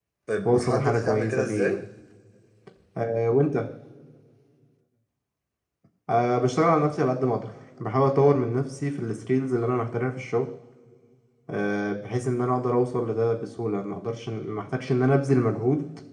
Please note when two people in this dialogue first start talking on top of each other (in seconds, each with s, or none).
0.5 s